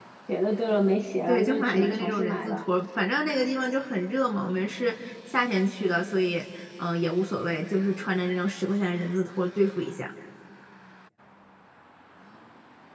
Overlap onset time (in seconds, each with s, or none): 1.3 s